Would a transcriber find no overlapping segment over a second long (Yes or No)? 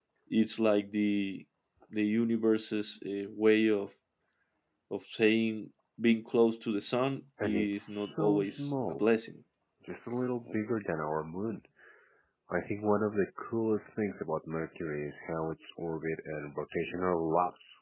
No